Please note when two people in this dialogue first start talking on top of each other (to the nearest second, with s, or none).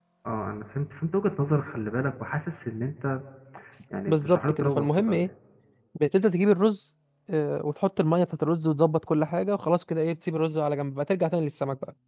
4 s